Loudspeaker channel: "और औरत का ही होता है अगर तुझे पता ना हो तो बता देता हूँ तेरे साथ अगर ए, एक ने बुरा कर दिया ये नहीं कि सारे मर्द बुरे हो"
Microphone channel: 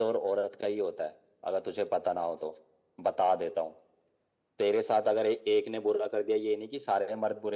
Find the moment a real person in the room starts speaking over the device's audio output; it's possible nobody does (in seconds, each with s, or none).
none